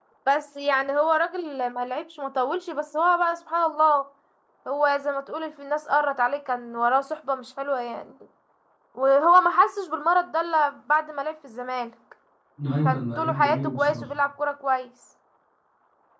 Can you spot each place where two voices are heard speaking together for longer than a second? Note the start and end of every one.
12.8-14.0

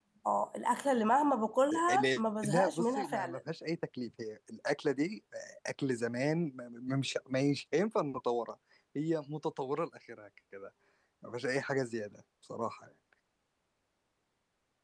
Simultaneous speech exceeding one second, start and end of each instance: 2.0-3.4

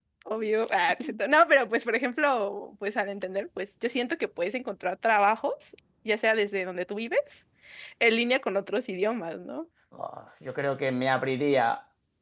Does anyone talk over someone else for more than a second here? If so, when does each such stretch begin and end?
none

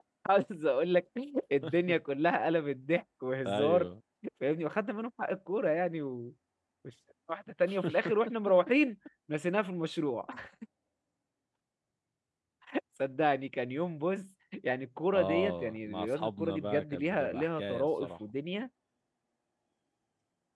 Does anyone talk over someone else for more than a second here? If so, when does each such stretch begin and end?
15.1-18.1

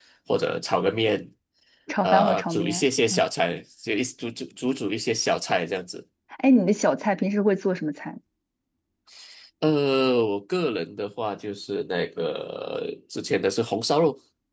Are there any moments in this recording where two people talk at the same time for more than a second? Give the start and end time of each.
2.0-3.2

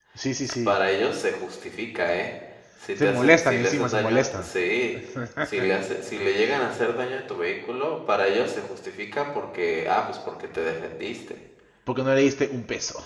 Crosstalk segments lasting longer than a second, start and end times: 3.0-4.5

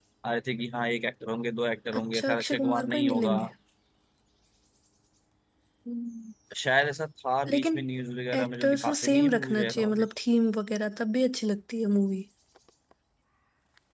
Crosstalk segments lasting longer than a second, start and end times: 2.0-3.4, 8.4-10.1

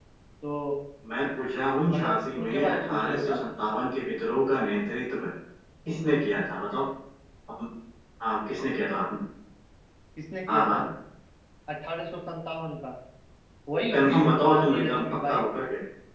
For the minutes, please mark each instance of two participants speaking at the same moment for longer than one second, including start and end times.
1.9-3.4, 13.9-15.4

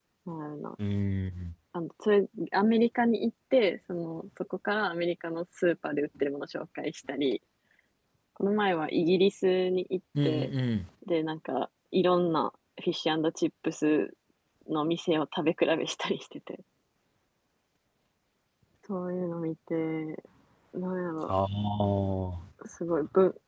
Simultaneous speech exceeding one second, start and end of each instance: none

